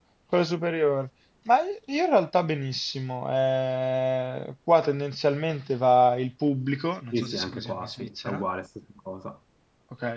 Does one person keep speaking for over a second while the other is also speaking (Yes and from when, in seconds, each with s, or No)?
Yes, from 7.1 s